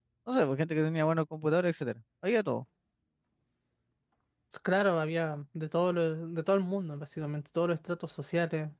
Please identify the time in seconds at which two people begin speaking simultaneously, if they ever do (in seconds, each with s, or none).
none